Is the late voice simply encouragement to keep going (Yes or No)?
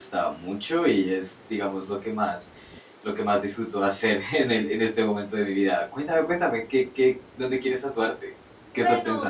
No